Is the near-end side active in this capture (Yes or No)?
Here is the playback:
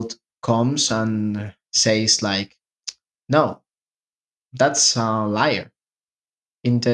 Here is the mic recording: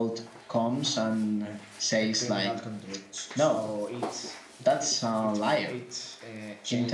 Yes